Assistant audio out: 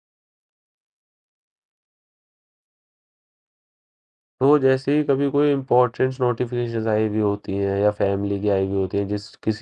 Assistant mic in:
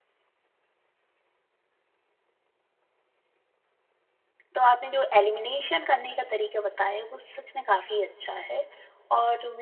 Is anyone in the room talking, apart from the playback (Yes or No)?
Yes